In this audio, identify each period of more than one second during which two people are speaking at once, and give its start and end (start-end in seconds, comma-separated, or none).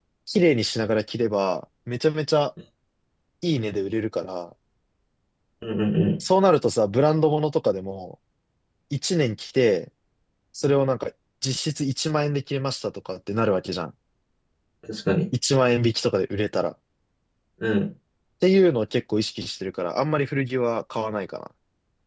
none